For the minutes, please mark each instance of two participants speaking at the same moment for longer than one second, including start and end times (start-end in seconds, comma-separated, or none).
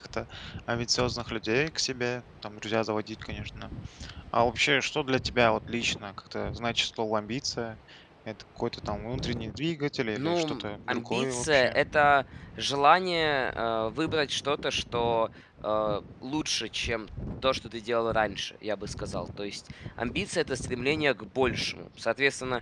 10.2-11.8